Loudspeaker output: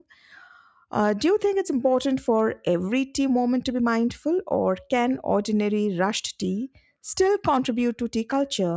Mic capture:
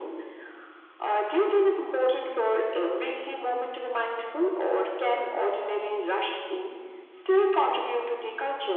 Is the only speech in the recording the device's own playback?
Yes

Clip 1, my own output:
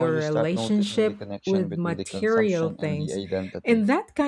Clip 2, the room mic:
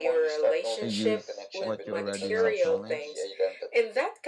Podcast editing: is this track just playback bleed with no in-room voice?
No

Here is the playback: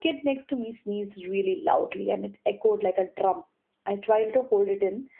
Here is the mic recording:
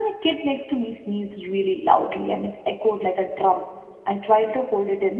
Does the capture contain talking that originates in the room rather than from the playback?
No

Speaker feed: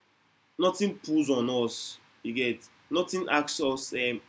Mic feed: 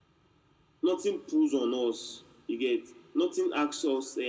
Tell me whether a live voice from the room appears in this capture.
No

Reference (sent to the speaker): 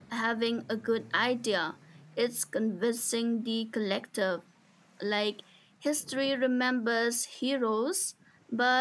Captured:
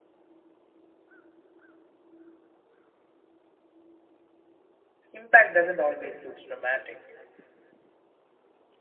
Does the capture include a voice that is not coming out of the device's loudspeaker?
Yes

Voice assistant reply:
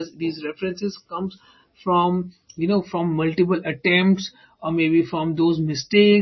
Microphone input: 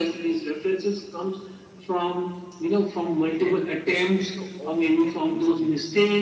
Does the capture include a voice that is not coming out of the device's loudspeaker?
Yes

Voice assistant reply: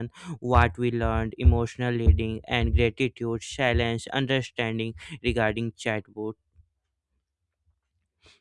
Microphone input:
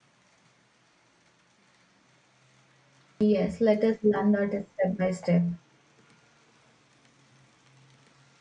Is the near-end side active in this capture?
Yes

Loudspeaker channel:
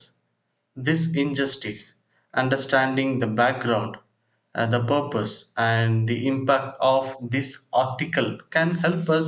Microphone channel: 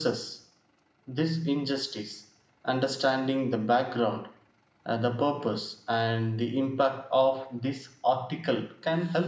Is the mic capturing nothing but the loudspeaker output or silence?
Yes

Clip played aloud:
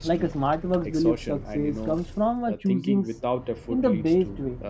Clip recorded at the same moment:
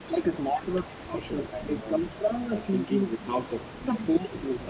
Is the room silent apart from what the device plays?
Yes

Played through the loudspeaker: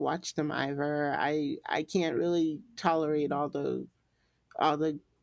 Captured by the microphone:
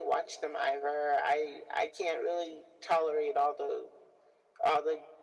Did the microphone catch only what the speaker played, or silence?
Yes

